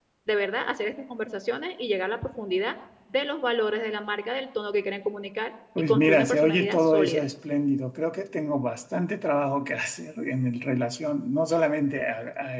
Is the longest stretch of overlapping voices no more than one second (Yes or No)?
No